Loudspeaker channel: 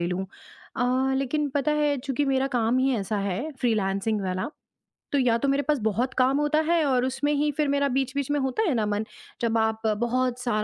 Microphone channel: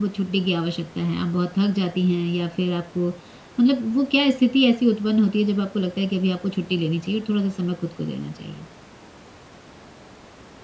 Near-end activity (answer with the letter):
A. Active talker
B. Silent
A